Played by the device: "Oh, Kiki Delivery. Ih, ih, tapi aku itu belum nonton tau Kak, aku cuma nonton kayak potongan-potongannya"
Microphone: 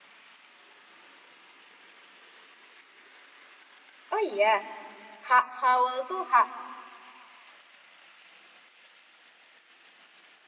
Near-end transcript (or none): oh iya, ha Howell tuh, ha,